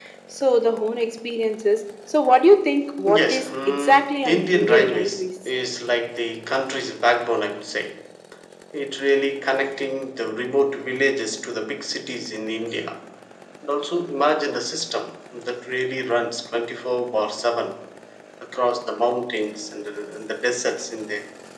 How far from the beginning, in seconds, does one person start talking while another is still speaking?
3.1 s

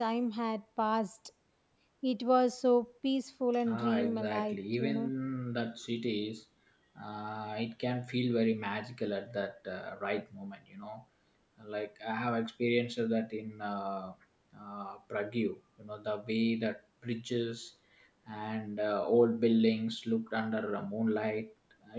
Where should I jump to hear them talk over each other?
3.5 s

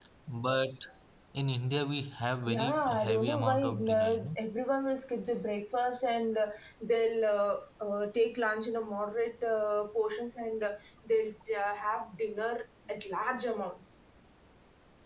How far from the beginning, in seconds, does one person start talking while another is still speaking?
2.5 s

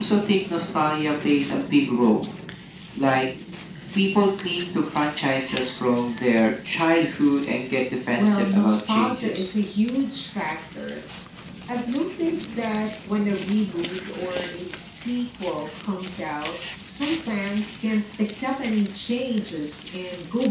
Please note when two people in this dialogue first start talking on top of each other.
8.2 s

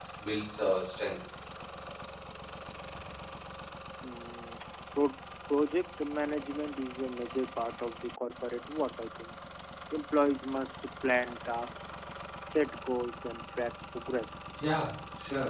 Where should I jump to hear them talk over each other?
none

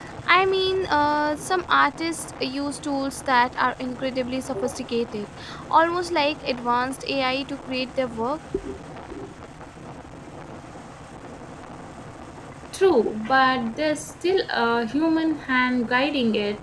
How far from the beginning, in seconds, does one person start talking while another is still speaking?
none

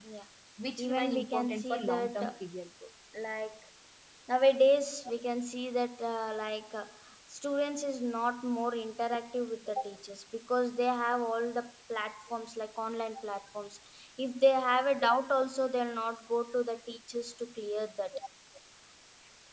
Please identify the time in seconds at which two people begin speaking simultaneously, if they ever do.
0.8 s

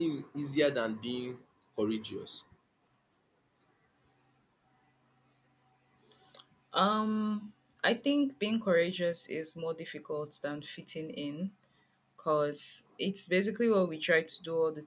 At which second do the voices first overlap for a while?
none

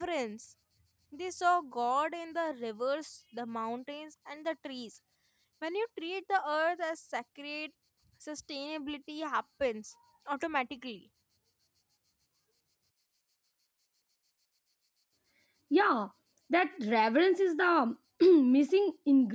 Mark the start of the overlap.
none

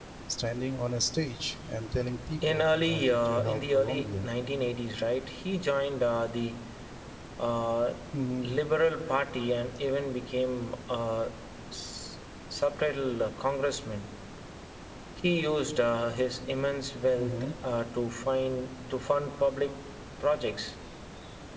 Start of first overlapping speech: 2.5 s

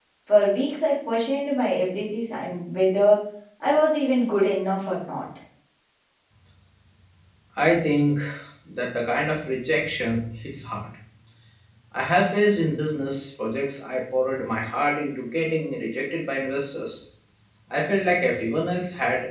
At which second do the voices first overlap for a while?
none

